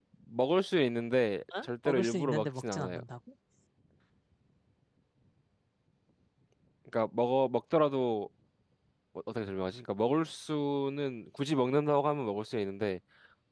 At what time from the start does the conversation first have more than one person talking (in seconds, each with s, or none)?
1.5 s